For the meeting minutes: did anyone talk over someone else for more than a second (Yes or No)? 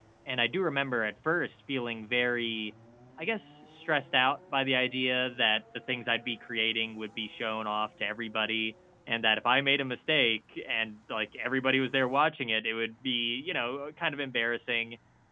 No